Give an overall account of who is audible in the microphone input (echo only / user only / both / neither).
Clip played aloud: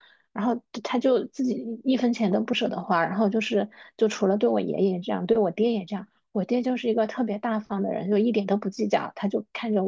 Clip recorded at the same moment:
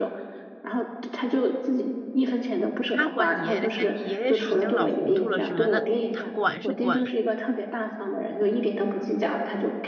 both